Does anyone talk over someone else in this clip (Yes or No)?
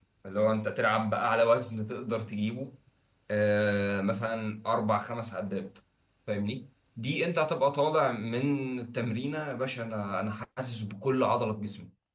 No